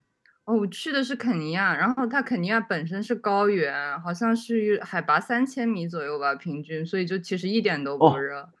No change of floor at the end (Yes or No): No